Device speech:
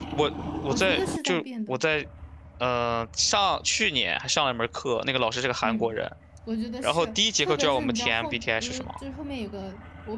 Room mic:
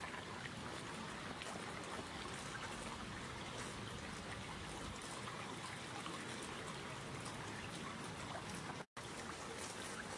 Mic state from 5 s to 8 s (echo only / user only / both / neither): neither